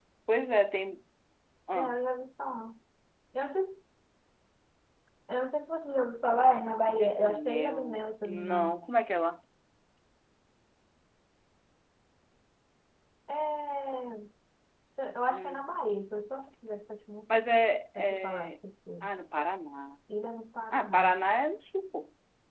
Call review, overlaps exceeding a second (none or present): present